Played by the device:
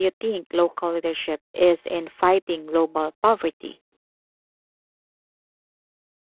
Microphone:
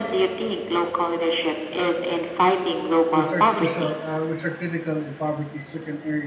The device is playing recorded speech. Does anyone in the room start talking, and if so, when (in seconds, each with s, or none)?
3.1 s